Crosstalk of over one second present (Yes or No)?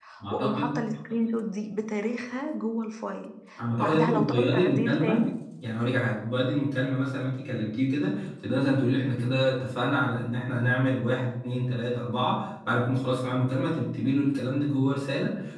Yes